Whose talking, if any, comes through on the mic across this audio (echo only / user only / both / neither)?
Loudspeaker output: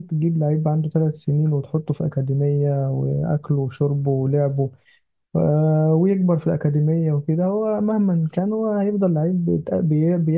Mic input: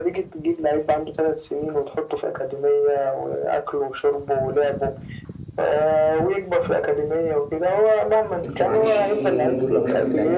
both